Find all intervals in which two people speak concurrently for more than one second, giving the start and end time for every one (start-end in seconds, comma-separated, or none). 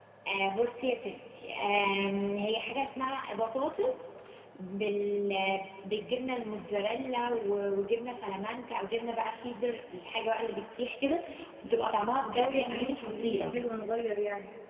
12.4-13.6